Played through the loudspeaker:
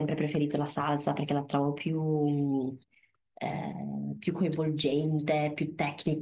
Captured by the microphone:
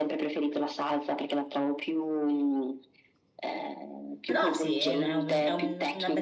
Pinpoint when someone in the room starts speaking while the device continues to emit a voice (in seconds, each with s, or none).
4.2 s